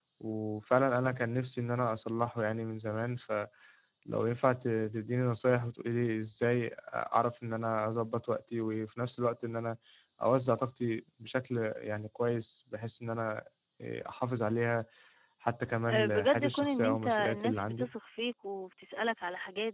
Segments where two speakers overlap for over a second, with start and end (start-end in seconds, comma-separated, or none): 15.9-17.9